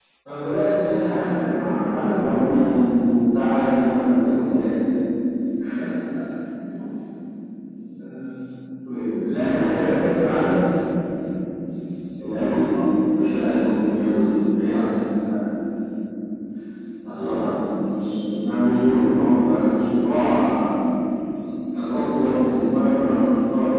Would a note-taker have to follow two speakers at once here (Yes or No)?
Yes